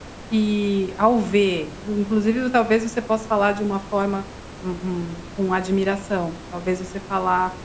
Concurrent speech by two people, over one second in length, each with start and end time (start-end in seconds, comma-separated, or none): none